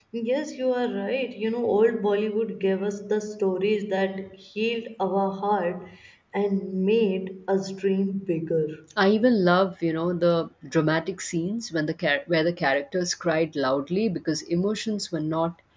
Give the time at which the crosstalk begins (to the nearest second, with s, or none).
none